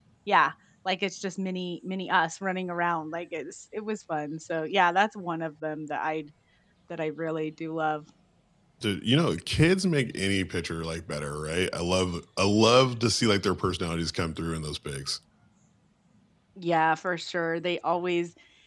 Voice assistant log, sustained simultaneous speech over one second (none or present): none